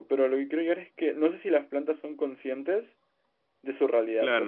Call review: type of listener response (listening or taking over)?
taking over